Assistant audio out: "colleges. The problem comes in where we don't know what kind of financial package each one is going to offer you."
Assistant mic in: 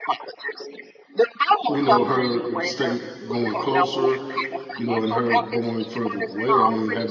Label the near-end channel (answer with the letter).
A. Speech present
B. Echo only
A